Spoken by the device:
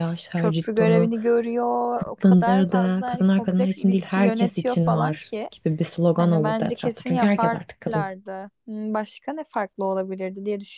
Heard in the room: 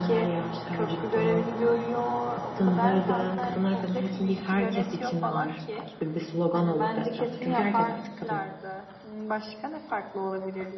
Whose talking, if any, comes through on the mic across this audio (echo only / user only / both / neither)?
echo only